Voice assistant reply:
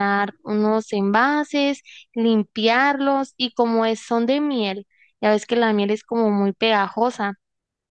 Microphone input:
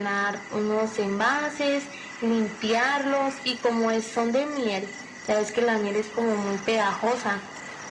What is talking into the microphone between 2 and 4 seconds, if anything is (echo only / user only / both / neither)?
echo only